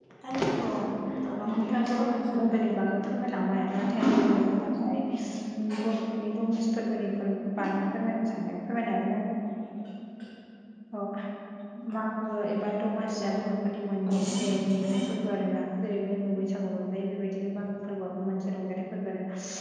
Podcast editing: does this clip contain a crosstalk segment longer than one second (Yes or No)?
Yes